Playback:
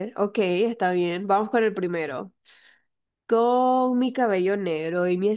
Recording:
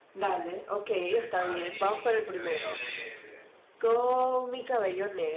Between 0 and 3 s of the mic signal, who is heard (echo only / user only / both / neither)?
both